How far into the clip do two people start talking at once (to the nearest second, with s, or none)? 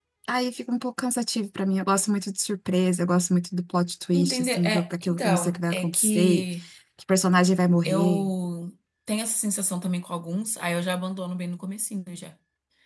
4 s